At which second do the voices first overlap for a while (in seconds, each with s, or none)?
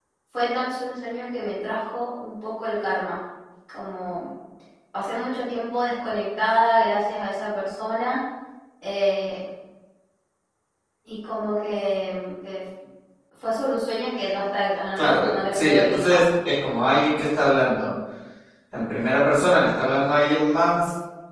15.0 s